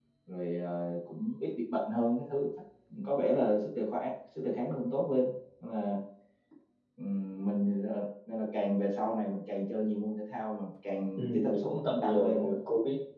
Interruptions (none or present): present